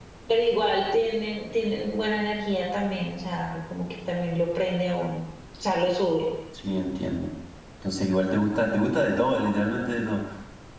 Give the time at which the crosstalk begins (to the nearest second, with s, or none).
none